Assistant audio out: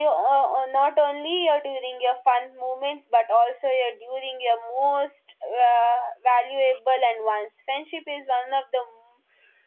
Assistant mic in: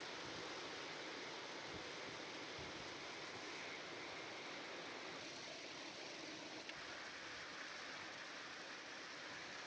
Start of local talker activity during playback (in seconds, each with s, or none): none